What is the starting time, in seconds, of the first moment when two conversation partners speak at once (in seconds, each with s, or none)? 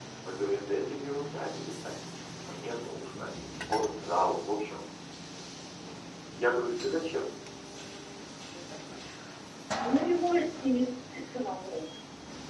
none